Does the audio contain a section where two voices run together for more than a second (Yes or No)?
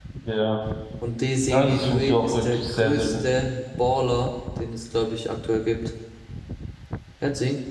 Yes